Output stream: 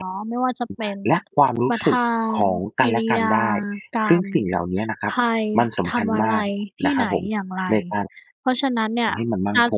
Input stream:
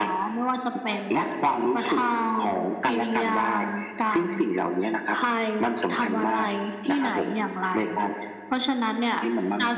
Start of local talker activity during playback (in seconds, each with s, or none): none